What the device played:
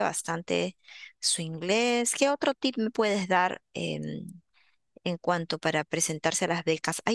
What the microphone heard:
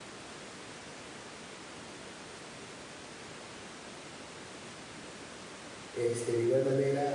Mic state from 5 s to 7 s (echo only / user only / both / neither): user only